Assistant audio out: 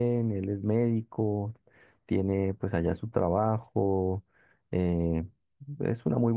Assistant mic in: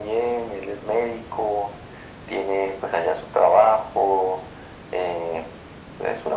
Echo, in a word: present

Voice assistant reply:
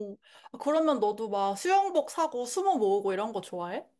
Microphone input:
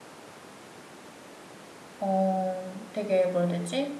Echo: none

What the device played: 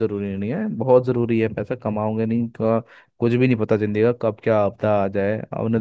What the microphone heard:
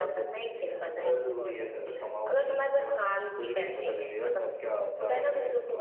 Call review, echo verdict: present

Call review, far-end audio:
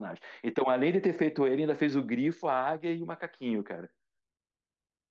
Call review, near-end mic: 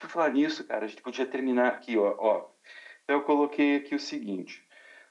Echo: none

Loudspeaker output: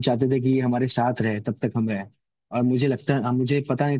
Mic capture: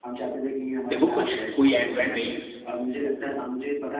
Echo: present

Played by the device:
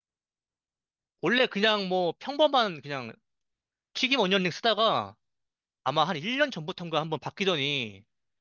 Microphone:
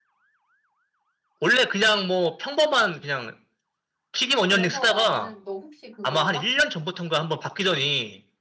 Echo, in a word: present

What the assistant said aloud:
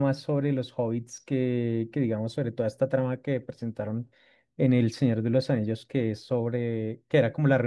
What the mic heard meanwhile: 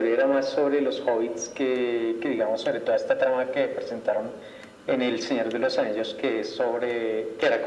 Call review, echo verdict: present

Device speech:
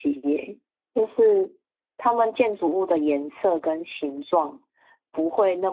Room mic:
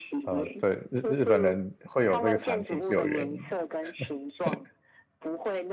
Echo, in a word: present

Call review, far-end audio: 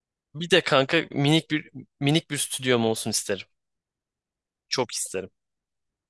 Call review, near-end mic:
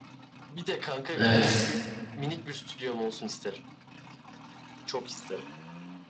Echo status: present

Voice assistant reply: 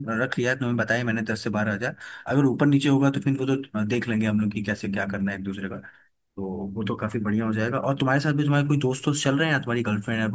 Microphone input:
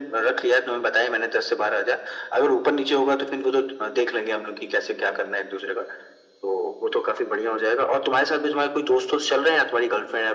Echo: present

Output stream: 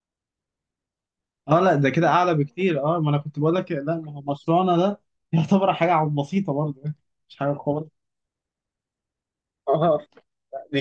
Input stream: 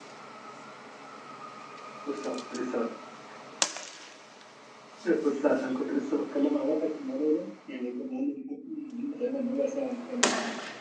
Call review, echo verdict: none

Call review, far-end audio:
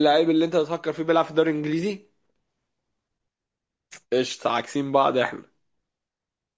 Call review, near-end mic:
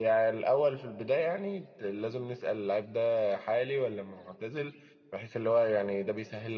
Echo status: none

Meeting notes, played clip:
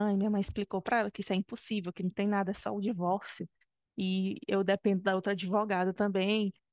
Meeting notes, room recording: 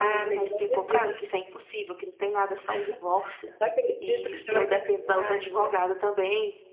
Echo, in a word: present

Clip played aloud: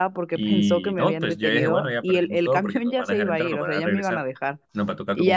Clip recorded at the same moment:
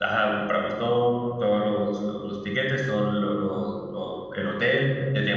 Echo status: none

